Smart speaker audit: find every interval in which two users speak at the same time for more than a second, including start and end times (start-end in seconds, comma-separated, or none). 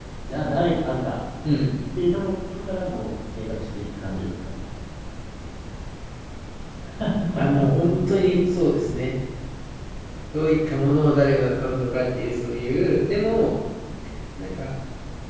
none